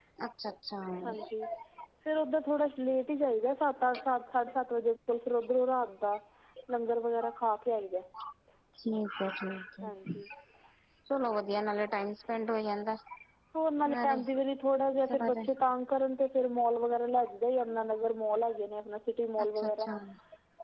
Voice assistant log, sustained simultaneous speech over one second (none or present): none